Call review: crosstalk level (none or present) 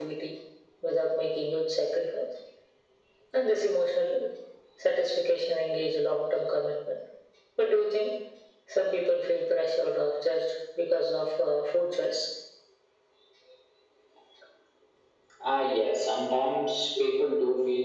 none